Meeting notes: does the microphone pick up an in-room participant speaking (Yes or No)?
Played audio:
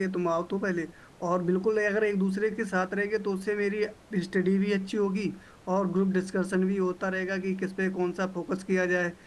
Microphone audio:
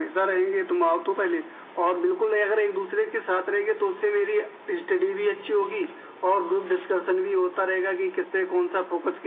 No